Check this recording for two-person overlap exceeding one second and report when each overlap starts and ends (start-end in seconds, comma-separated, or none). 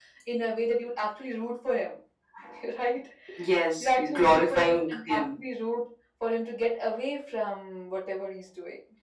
3.8-5.4